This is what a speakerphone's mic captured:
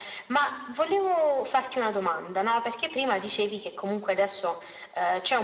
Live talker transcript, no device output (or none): none